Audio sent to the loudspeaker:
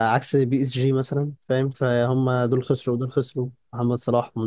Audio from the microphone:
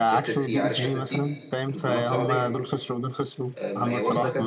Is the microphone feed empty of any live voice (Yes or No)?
No